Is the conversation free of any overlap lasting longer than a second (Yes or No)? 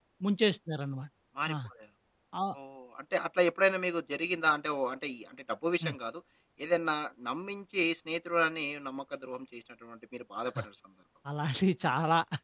Yes